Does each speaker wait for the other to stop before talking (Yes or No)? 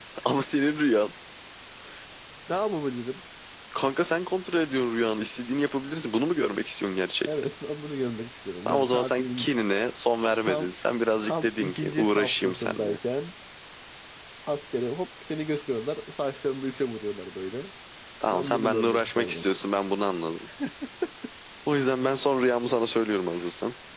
No